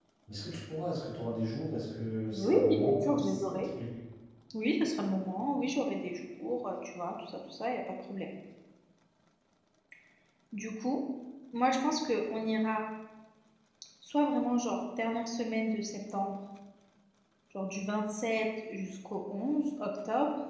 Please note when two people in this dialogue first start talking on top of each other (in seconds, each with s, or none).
2.3 s